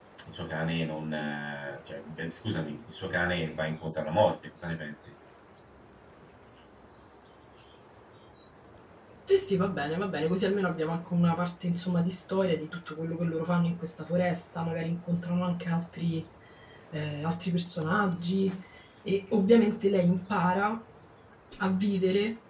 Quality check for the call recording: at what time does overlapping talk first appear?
none

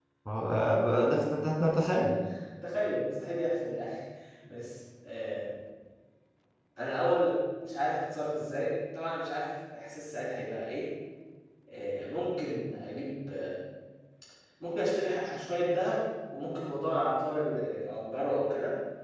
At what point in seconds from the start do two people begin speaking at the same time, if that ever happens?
none

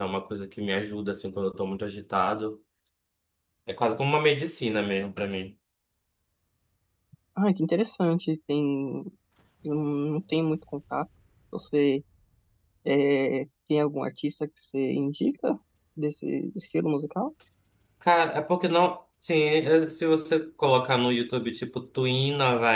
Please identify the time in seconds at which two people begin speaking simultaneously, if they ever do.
none

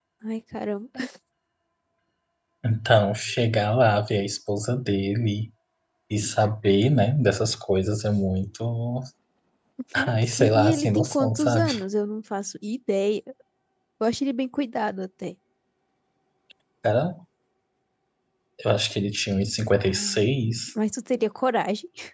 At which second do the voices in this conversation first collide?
10.2 s

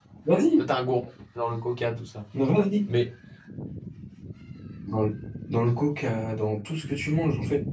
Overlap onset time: none

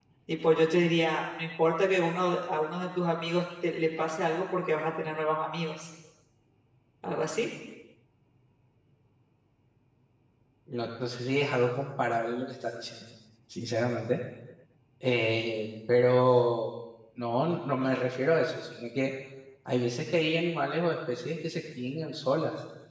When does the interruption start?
none

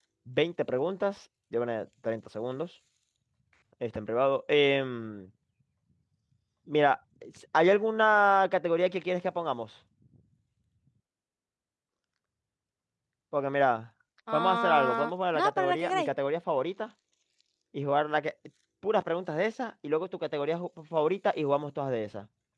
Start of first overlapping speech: 14.3 s

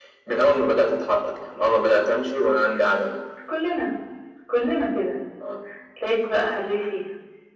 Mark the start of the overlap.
none

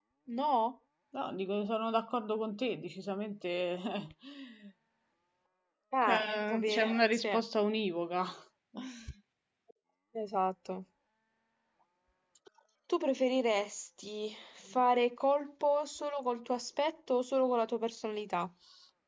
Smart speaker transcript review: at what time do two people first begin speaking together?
6.0 s

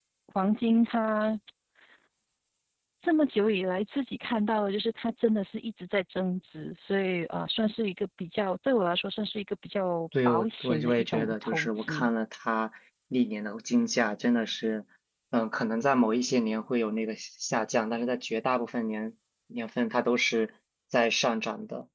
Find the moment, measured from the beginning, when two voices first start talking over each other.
10.1 s

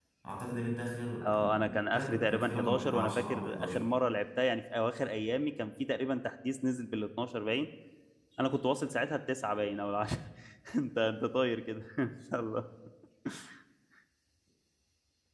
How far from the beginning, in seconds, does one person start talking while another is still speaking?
1.2 s

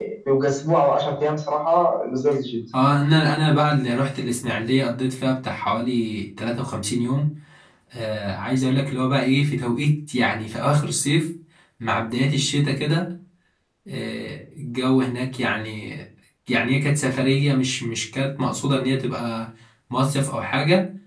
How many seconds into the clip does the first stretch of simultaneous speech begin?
none

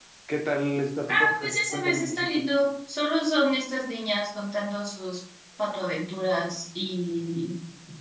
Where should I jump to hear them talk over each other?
1.1 s

